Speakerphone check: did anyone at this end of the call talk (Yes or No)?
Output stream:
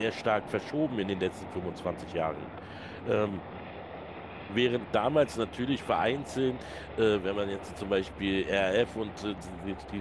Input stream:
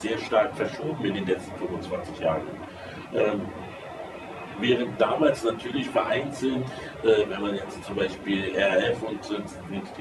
No